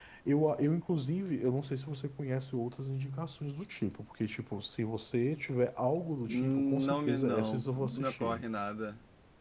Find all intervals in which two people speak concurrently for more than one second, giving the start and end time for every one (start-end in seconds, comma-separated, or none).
6.3-8.4